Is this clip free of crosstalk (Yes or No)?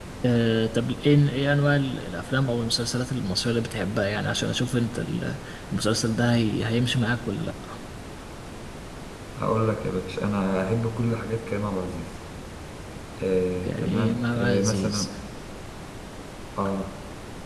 No